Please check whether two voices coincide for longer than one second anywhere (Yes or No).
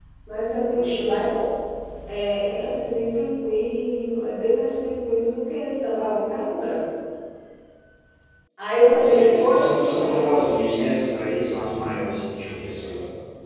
Yes